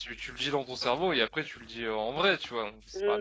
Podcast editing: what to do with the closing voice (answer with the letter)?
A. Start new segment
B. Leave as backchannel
A